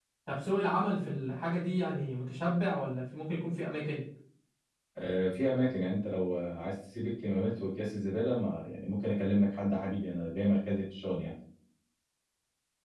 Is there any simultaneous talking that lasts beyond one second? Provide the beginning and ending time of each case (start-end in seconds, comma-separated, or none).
none